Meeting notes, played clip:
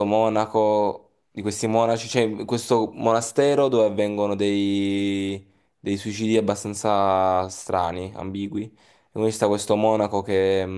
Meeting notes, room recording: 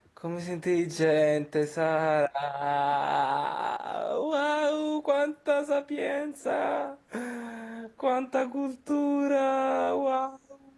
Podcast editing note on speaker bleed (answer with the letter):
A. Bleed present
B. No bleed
B